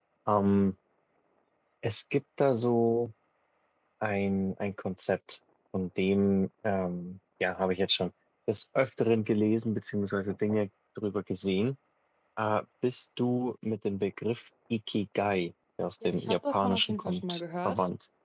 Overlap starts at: 16 s

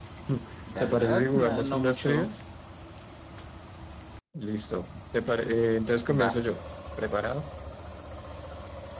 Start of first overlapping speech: 1 s

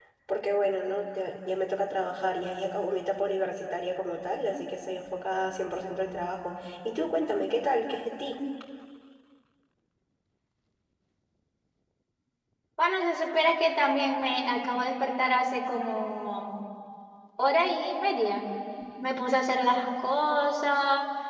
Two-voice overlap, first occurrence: none

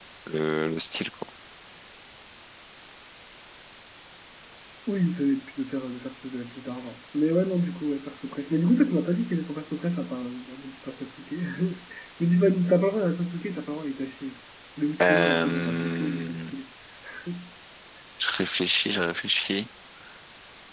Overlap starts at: 15 s

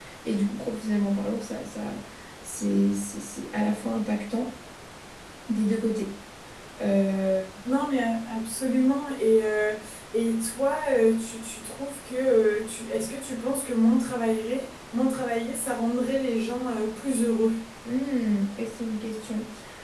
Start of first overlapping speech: none

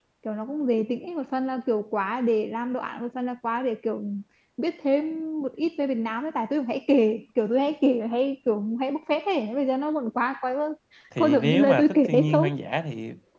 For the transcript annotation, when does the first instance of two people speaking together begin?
11 s

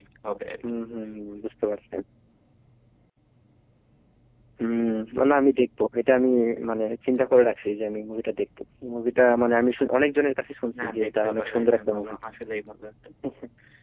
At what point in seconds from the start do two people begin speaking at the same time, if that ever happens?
11 s

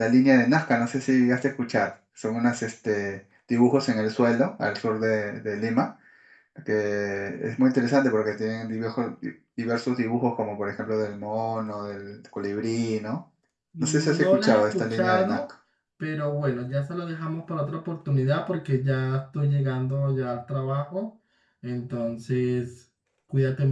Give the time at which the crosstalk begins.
14 s

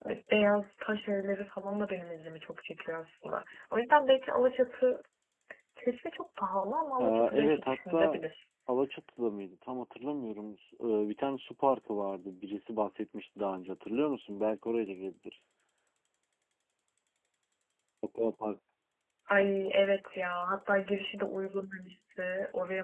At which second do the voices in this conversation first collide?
7 s

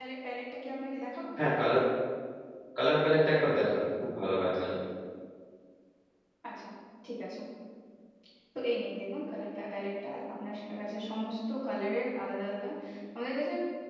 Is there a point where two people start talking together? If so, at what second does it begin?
none

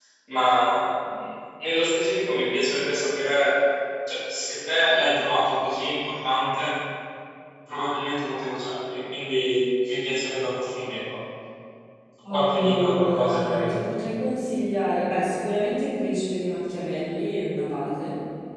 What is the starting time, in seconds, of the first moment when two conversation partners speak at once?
12 s

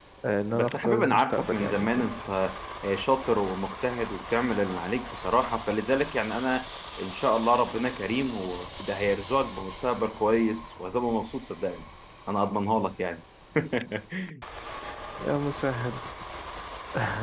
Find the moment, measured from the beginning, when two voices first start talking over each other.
1 s

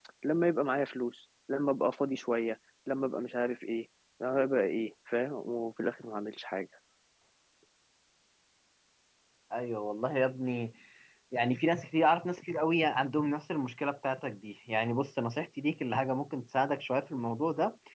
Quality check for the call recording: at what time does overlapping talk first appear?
none

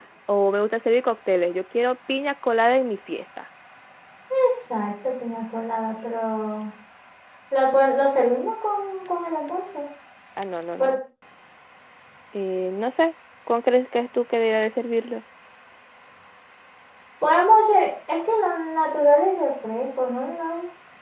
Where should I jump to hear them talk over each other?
none

